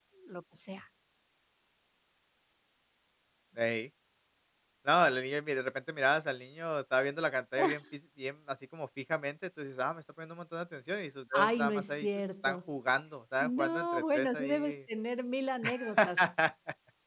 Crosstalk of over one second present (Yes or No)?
Yes